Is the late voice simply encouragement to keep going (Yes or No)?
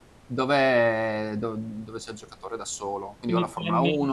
Yes